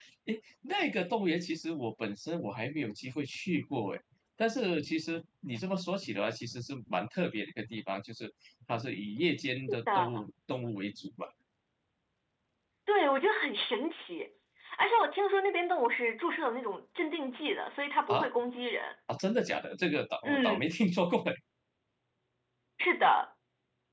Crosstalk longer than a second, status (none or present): none